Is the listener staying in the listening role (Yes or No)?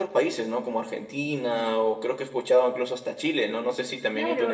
No